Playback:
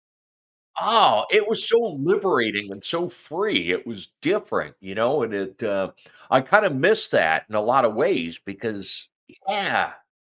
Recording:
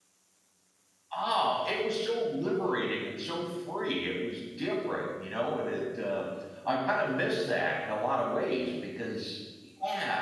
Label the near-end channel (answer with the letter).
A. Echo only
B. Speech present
B